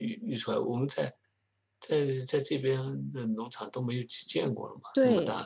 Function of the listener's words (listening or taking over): taking over